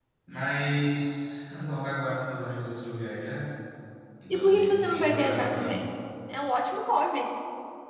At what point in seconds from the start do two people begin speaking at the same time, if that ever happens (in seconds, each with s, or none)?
4.3 s